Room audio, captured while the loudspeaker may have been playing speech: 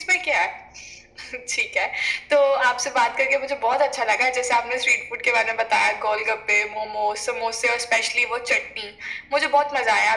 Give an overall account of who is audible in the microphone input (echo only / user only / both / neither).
echo only